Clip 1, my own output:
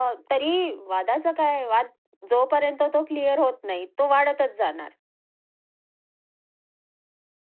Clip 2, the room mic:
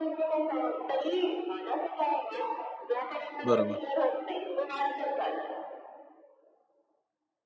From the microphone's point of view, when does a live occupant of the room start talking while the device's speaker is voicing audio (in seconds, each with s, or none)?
3.5 s